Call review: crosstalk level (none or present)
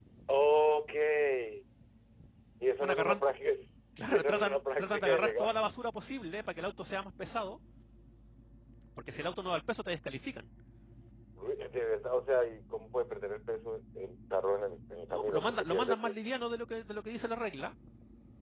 present